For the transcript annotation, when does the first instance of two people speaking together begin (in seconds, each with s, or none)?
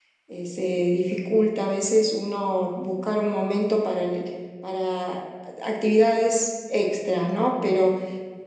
none